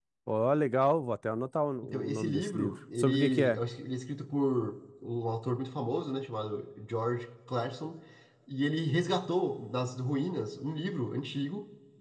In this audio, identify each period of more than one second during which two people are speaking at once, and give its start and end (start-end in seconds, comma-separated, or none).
1.8-3.6